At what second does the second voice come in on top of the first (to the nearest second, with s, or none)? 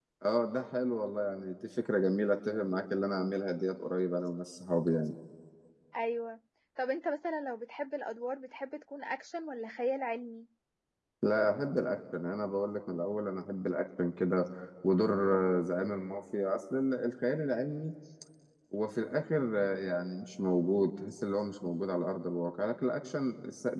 none